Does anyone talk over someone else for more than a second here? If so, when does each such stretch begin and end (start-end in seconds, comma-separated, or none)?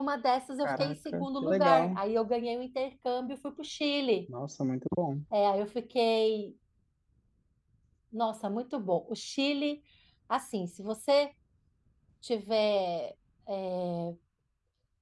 0.6-2.0